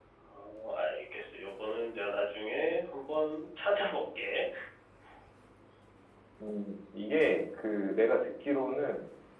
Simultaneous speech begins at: none

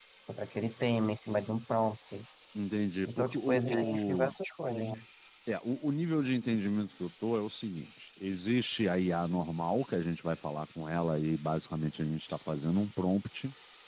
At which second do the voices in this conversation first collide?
3.0 s

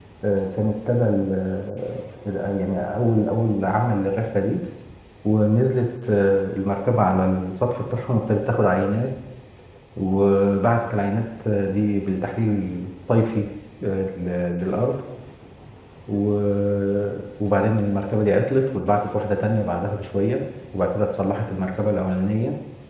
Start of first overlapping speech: none

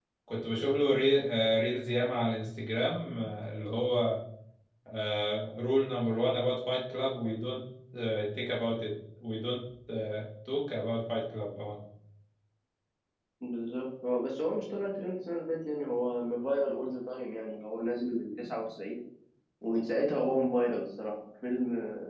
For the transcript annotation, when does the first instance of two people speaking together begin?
none

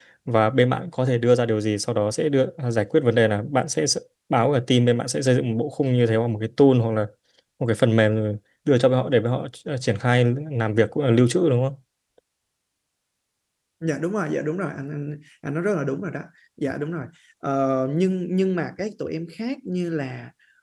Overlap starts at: none

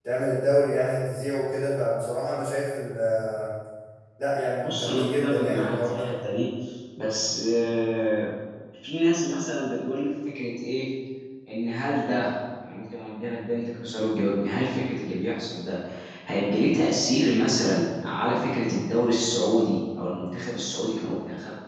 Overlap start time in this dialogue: 4.6 s

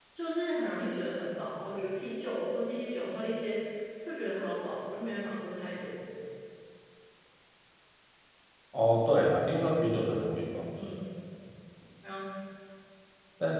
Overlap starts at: none

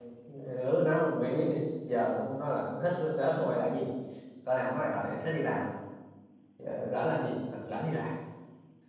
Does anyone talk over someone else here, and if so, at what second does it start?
none

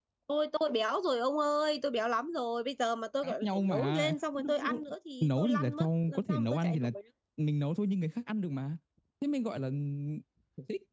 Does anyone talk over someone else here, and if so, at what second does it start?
3.2 s

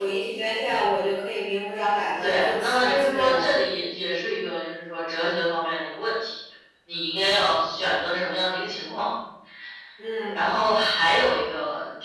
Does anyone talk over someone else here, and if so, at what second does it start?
2.2 s

